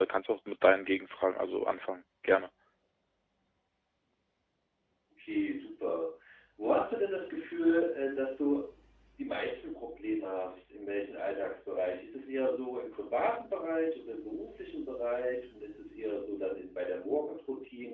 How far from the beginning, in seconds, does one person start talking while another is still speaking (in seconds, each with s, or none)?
none